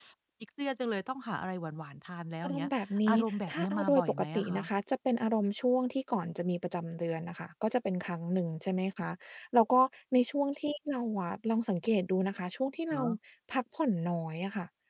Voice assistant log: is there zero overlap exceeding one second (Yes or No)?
No